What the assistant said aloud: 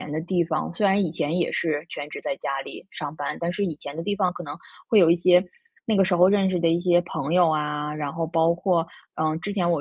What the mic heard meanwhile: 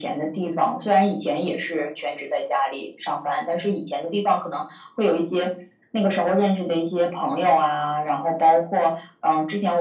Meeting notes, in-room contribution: none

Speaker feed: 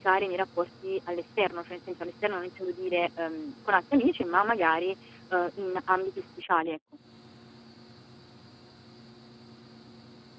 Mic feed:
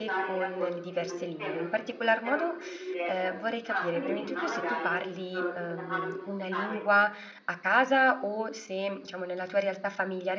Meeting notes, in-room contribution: present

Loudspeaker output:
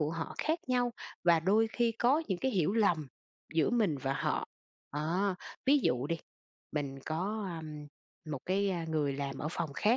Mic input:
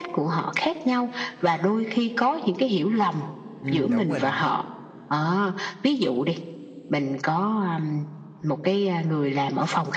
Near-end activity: present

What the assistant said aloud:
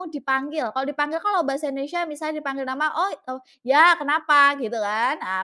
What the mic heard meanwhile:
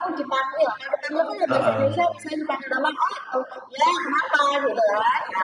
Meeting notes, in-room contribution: present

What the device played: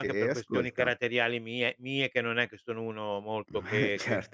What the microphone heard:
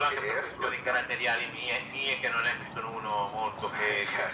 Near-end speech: none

